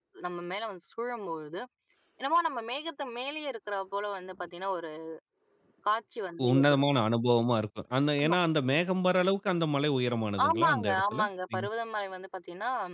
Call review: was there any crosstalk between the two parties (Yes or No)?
Yes